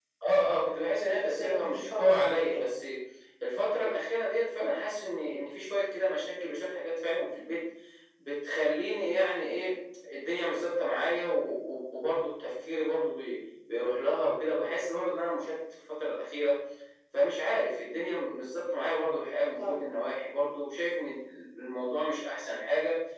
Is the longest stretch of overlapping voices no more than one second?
No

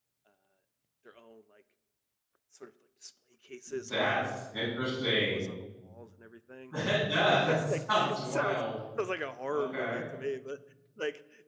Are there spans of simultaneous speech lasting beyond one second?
Yes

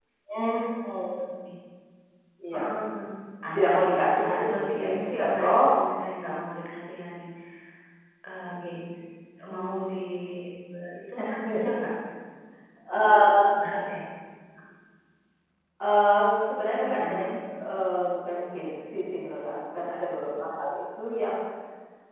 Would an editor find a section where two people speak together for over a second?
Yes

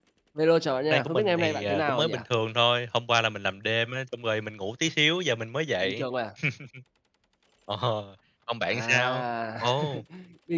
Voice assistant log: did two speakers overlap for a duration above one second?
Yes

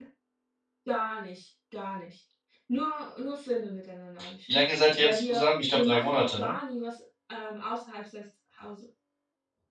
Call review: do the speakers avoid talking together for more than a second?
No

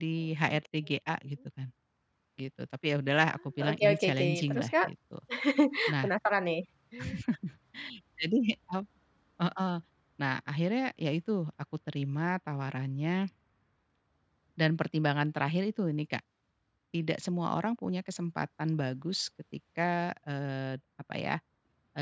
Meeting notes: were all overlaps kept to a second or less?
No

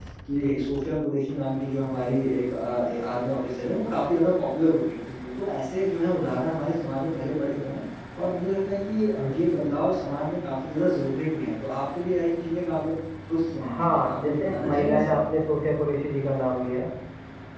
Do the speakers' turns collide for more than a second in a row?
Yes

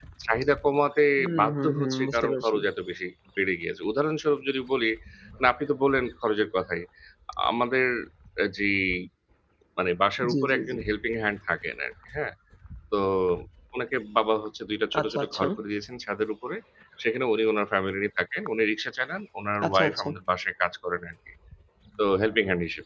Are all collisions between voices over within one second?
No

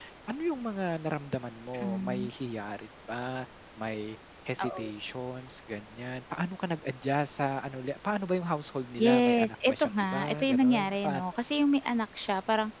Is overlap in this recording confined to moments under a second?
No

